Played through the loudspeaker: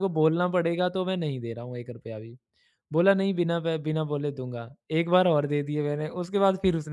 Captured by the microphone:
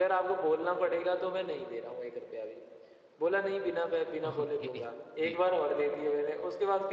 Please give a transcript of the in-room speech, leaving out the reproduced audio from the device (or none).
ओके, जी,